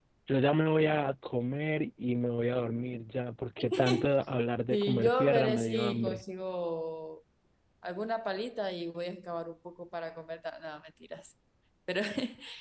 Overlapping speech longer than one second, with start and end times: 4.7-6.2

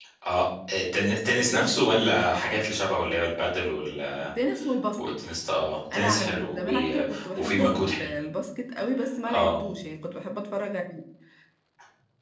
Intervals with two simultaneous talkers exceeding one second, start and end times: 1.2-2.6, 5.9-8.1

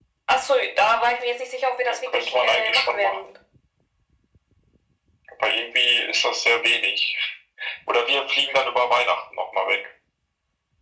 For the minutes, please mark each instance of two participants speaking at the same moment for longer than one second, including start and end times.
1.9-3.3

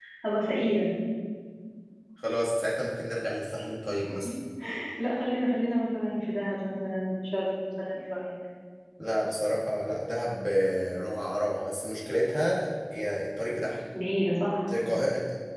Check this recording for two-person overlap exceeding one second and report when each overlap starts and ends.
none

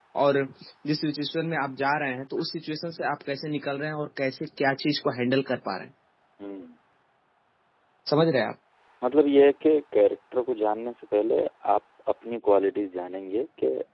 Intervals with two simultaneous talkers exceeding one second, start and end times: none

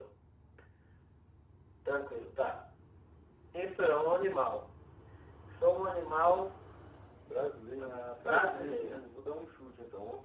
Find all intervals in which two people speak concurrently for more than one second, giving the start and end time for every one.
7.8-9.0

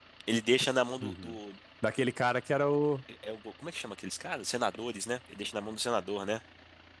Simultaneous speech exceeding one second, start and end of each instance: none

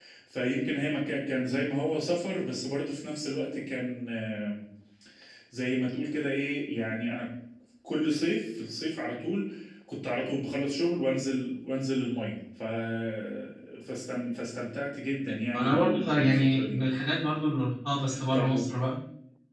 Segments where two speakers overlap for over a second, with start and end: 15.5-16.8

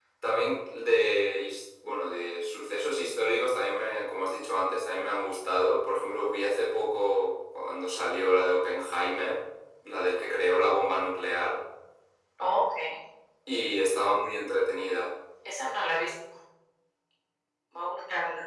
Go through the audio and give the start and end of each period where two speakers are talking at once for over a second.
none

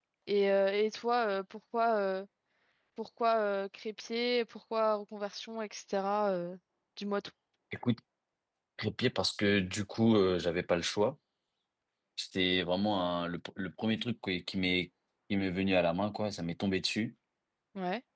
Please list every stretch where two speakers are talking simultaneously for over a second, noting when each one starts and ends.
none

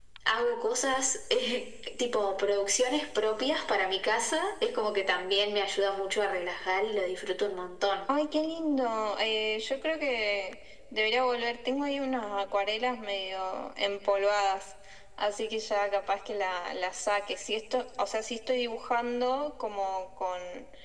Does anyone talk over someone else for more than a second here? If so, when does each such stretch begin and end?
none

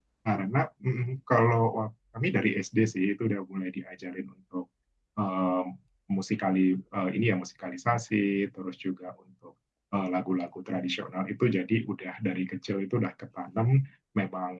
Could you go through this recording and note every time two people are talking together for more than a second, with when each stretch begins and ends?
none

